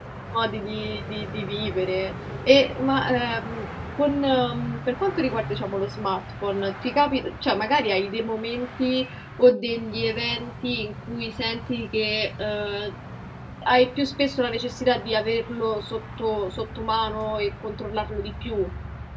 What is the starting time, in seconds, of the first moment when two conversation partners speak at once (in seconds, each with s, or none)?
none